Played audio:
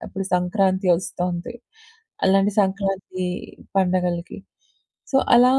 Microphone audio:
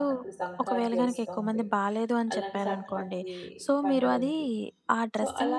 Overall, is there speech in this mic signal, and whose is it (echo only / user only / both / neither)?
both